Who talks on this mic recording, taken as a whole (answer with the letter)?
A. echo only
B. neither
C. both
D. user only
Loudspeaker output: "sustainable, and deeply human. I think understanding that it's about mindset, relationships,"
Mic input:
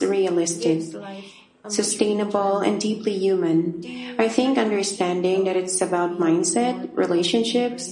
C